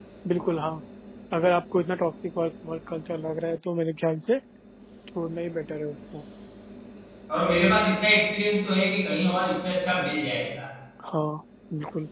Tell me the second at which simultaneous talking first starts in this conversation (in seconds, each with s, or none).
none